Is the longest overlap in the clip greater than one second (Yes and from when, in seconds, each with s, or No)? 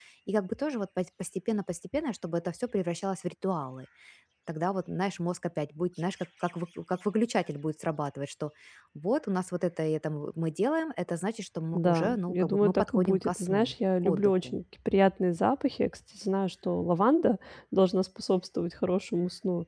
Yes, from 11.7 s